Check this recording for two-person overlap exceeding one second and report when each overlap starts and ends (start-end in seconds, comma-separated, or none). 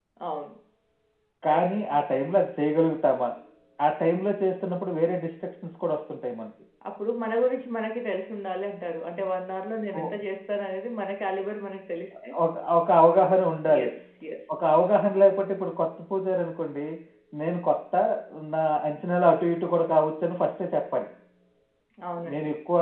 none